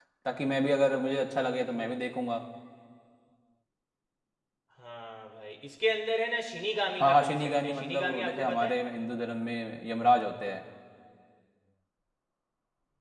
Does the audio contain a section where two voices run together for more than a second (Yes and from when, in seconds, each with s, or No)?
Yes, from 7.0 s